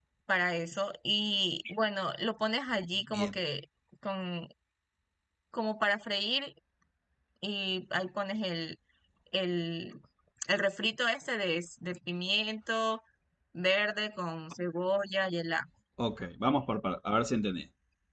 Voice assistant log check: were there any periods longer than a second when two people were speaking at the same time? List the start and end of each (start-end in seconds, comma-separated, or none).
none